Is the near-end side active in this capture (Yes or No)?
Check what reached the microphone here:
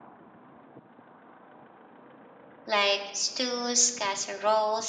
Yes